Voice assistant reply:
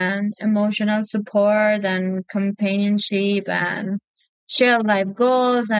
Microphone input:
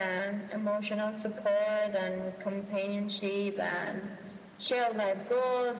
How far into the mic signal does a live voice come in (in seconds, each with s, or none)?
none